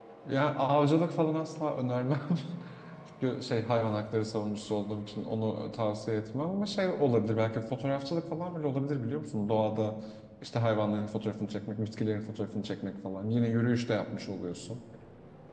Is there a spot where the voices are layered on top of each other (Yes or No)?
No